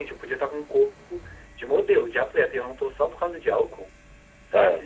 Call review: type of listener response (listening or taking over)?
taking over